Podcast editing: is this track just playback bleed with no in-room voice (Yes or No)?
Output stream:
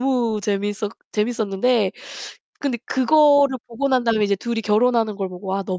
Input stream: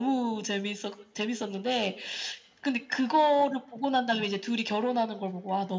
Yes